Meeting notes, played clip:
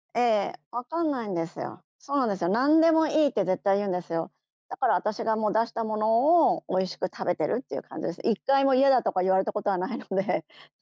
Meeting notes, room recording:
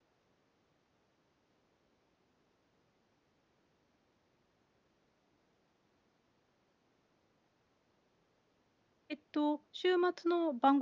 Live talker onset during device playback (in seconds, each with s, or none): 9.1 s